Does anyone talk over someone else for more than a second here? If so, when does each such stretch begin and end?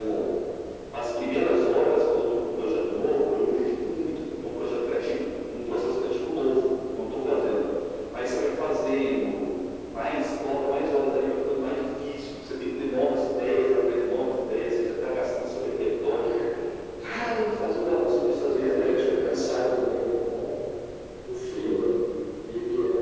17.9-19.6

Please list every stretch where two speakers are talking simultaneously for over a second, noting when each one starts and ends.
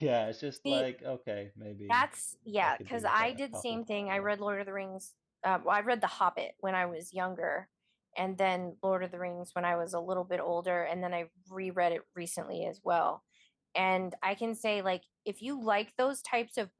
2.6-4.3

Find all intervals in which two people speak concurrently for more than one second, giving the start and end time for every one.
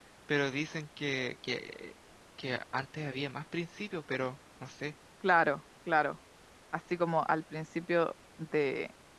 none

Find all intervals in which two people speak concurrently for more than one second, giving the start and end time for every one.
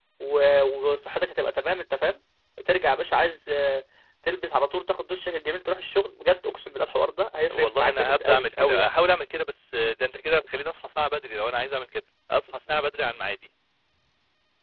7.5-8.9

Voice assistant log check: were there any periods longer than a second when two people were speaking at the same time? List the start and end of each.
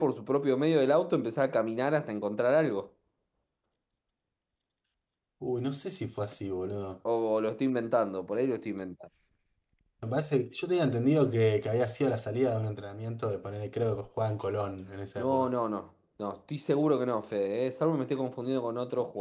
none

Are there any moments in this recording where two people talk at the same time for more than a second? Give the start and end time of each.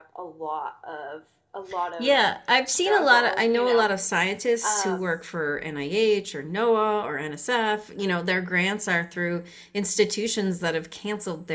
2.7-4.0

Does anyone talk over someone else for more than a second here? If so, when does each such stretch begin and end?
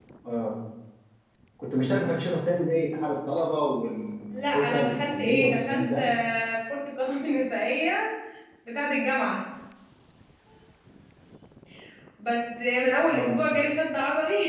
4.3-6.0

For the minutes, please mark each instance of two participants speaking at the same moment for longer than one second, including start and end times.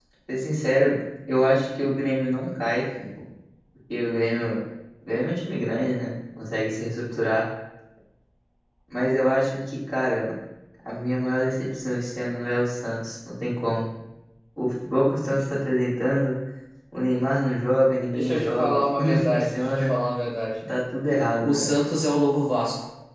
18.2-19.9

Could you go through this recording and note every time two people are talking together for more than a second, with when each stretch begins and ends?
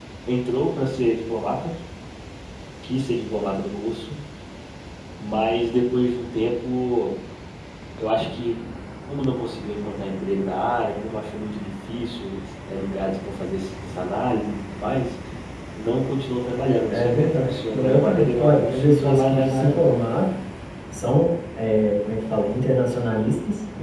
16.9-19.9

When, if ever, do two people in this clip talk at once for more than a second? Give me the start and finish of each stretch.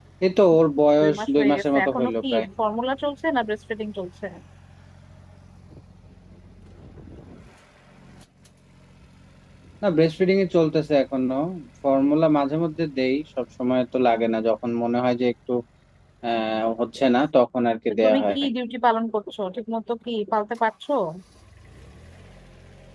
1.0-2.5

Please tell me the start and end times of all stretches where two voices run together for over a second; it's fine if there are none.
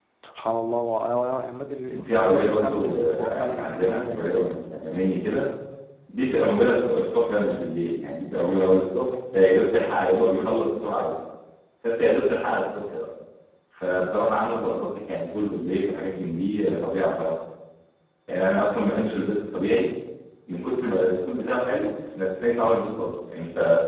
1.9-4.5

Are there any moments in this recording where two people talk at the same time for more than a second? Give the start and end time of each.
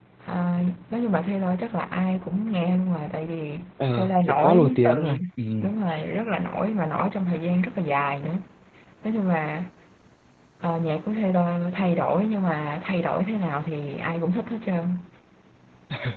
4.0-5.2

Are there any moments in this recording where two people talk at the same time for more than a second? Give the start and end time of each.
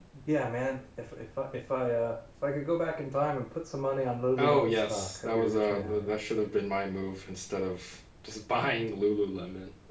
4.4-6.1

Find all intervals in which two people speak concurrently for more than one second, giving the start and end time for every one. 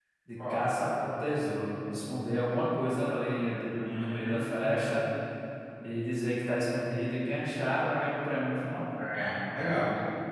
3.7-5.0

